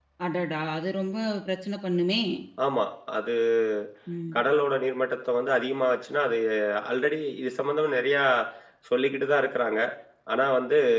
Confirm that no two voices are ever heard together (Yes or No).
Yes